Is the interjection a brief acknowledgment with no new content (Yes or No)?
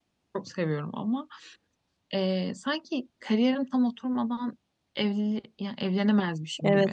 No